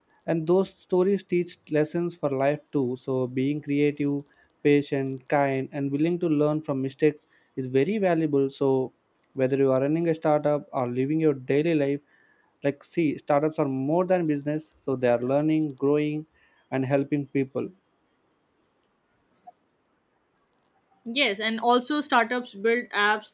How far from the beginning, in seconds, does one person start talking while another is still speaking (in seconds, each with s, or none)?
none